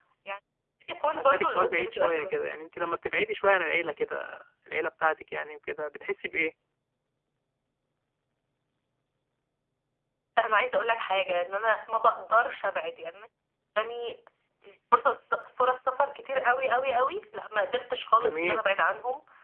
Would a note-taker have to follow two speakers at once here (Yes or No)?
Yes